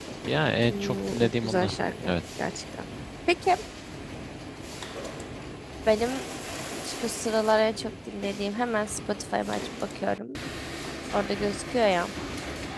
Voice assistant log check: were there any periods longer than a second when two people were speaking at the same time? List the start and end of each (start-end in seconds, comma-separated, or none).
0.7-2.1